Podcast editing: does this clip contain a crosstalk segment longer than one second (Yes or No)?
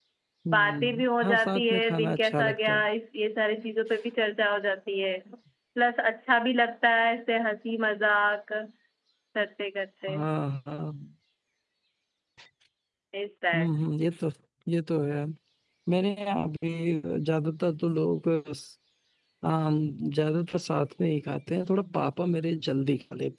Yes